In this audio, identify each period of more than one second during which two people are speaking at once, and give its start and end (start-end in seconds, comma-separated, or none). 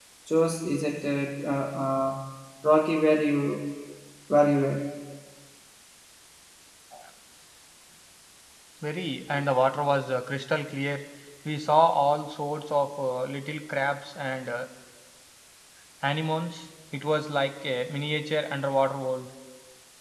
none